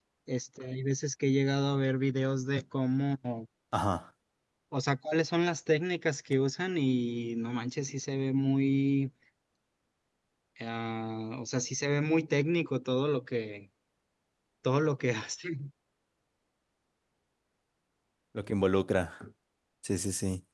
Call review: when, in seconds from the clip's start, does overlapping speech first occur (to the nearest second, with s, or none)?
none